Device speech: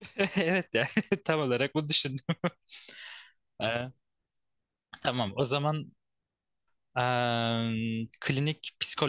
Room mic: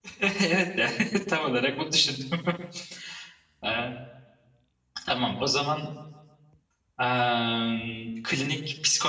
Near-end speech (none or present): none